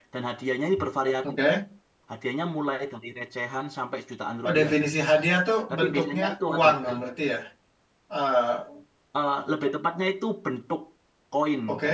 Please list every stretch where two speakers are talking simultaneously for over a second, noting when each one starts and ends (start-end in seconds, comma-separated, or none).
5.7-7.1